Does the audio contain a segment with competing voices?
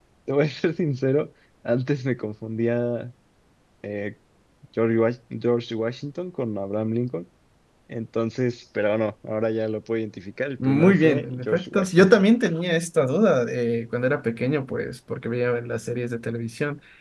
Yes, from 10.6 s

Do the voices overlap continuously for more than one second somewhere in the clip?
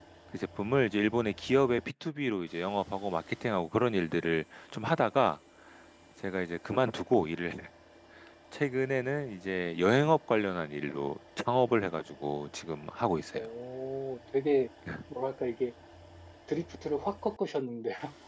No

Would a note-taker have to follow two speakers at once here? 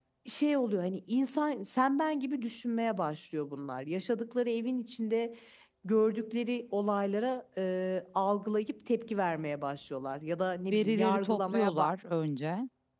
Yes, from 10.7 s

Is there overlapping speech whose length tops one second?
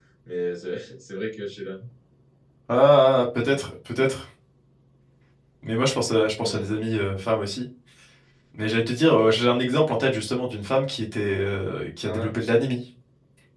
No

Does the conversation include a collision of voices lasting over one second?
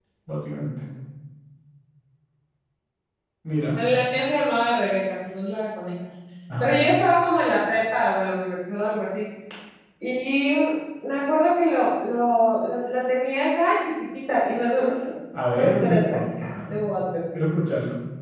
Yes, from 15.6 s

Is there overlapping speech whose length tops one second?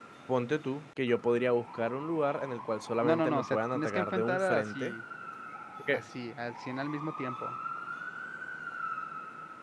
Yes, from 3.0 s

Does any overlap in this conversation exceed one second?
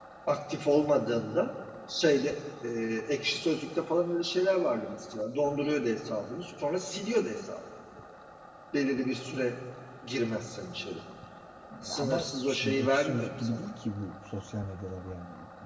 Yes, from 11.8 s

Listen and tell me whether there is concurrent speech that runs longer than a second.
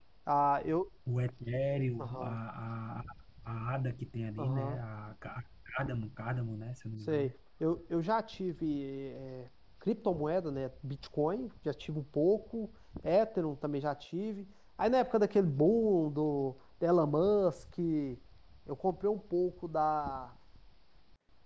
No

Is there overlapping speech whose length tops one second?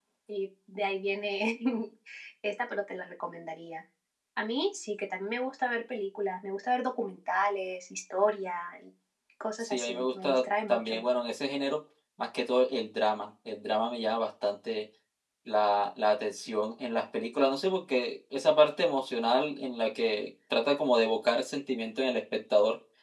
Yes, from 9.6 s

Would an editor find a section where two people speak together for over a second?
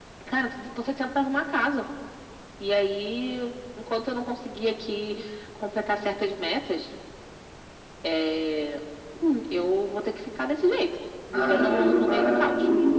Yes, from 11.3 s

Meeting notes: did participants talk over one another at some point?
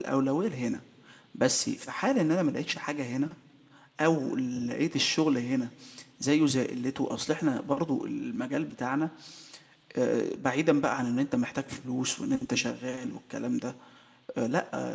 No

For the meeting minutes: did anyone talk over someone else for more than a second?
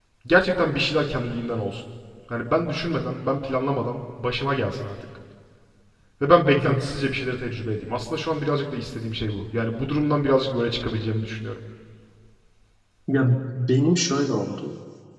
No

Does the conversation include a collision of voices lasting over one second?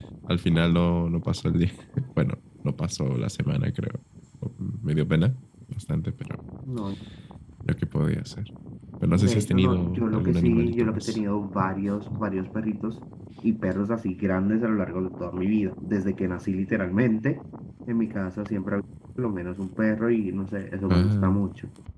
Yes, from 9.2 s

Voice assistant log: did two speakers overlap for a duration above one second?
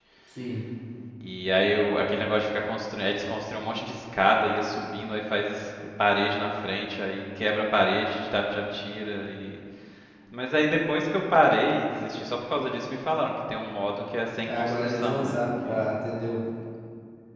Yes, from 14.5 s

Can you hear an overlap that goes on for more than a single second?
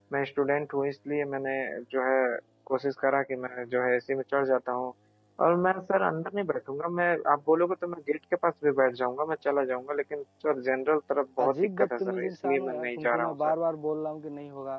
Yes, from 11.4 s

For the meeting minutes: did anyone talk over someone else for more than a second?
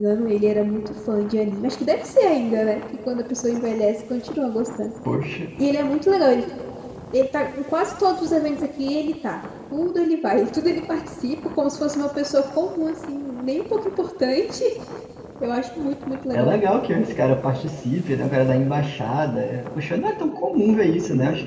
No

